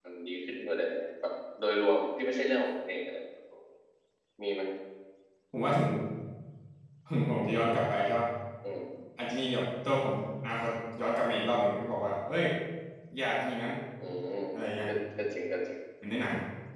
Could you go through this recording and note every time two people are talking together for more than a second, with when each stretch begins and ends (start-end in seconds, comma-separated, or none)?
none